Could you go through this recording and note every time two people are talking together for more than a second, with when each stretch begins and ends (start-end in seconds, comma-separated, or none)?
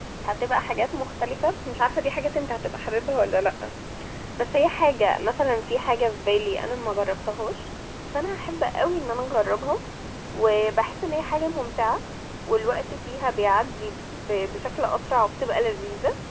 none